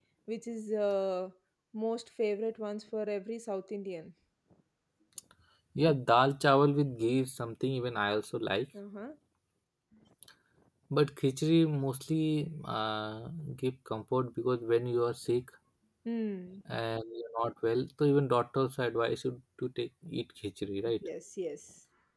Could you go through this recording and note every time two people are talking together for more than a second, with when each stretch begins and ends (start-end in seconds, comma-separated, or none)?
none